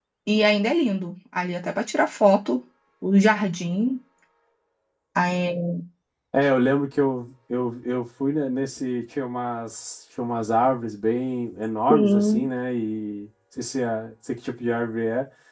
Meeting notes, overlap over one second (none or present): none